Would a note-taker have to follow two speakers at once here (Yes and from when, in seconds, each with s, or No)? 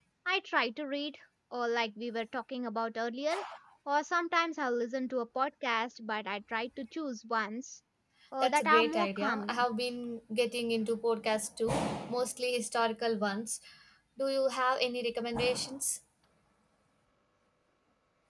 Yes, from 8.4 s